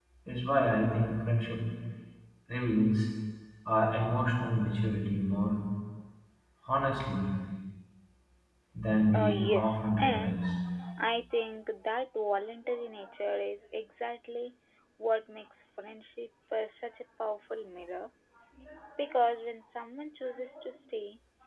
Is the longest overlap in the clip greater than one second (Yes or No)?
Yes